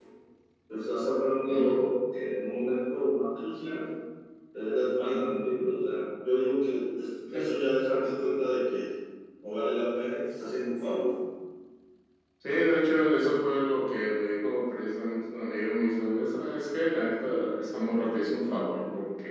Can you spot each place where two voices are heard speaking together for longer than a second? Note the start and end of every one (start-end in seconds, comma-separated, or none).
none